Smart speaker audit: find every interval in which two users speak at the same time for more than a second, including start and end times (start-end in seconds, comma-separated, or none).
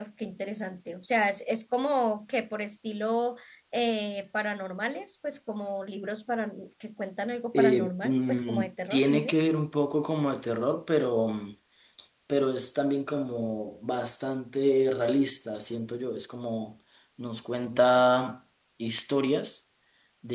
7.5-9.4